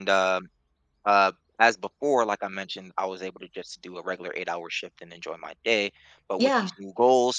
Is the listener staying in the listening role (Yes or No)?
Yes